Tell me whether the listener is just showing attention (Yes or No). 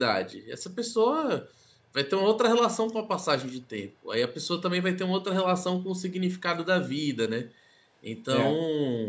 Yes